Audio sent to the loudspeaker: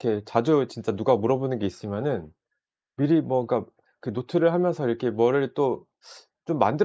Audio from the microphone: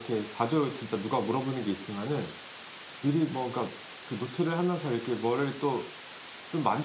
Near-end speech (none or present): none